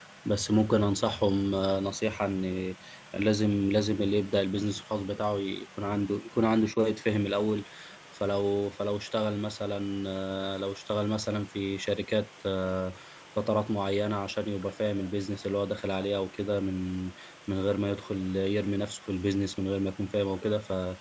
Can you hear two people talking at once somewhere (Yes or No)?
No